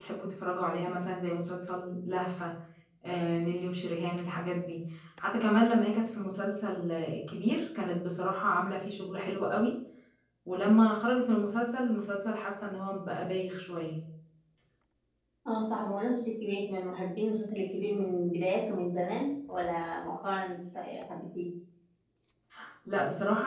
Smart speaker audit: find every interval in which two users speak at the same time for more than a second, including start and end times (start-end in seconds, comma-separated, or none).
none